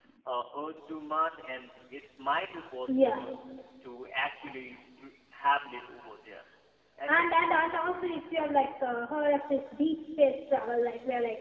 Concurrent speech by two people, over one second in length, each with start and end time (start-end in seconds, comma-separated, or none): none